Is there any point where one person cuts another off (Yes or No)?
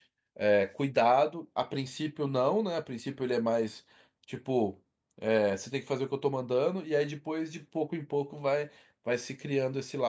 No